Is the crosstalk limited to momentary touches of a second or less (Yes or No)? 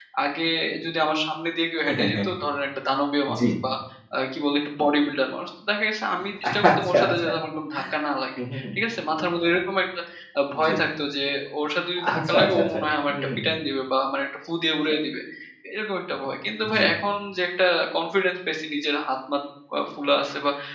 No